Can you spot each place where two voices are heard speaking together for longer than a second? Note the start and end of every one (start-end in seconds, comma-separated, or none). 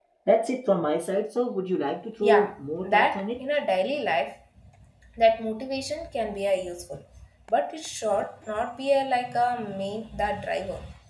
2.2-3.4